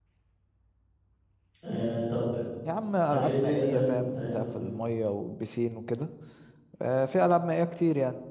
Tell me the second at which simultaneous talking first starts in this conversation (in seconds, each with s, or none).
3.1 s